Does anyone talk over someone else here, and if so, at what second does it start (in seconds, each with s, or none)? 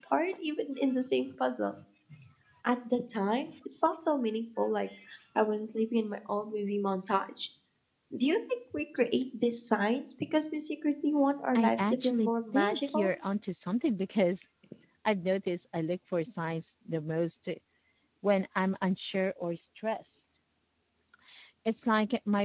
11.6 s